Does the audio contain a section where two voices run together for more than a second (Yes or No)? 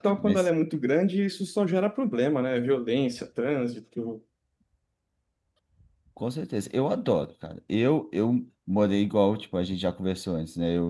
No